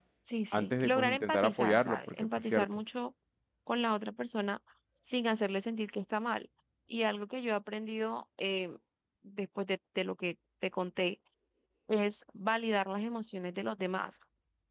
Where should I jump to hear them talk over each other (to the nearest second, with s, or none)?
1 s